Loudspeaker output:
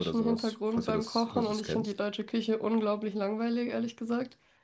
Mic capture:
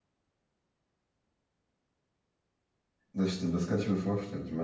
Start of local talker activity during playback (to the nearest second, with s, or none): 3 s